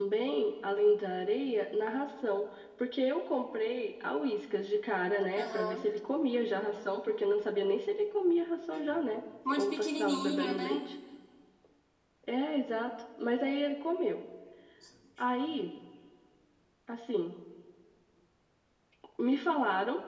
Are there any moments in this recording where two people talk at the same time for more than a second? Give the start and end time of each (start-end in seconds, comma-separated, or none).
9.5-10.8